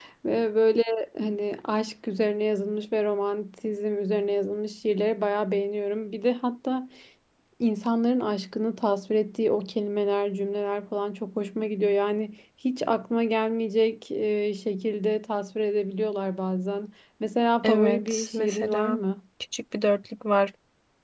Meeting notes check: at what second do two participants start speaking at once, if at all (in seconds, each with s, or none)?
17.6 s